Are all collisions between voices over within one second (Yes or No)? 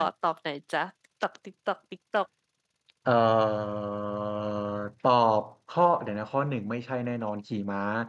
Yes